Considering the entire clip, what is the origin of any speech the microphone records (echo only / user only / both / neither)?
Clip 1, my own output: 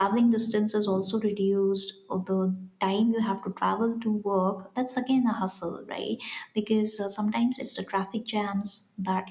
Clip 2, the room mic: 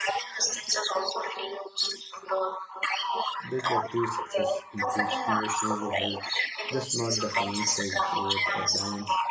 both